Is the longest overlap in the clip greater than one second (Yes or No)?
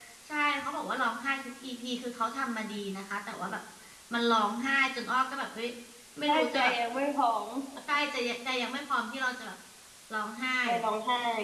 No